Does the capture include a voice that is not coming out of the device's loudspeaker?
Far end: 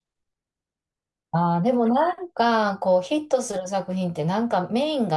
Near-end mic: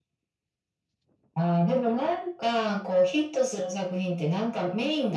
No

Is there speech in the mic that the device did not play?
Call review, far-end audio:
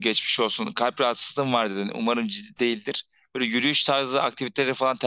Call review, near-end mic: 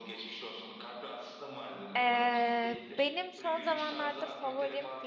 Yes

